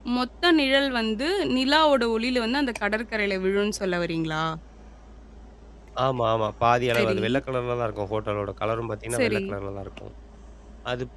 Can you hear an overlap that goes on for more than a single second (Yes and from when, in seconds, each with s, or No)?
No